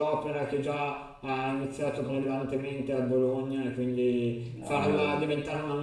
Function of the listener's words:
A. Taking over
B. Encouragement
B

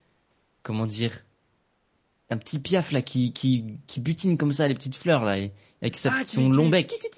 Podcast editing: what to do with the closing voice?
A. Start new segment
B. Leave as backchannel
A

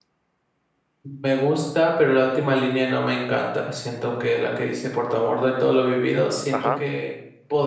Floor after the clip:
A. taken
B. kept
B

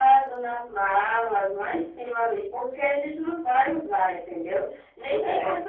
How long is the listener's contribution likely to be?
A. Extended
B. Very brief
B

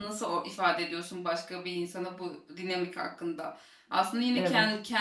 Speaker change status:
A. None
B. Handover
A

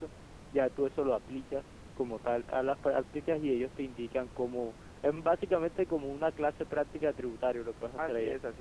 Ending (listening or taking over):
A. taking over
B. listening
A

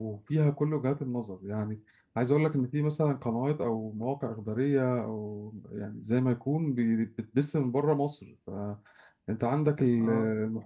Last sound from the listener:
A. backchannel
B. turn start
A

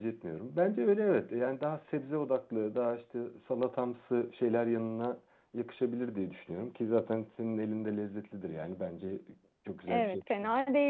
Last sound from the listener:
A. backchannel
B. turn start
B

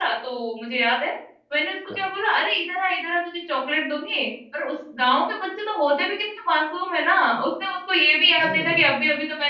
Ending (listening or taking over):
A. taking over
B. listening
B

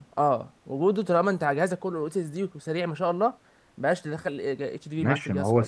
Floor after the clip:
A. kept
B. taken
B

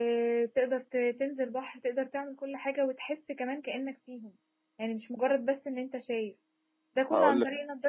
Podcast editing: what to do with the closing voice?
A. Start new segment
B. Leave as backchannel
B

